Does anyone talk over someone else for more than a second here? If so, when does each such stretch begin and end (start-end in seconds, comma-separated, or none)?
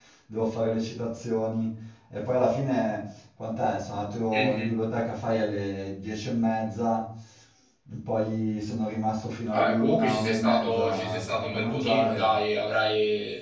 9.5-12.3